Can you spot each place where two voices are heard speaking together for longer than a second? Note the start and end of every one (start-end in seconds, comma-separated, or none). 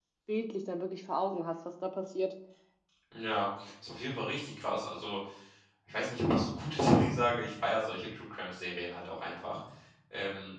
none